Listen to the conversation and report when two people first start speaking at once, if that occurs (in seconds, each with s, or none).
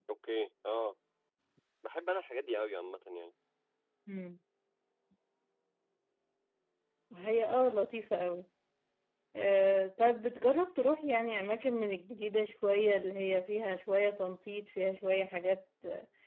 none